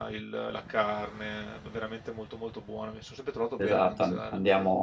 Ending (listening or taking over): taking over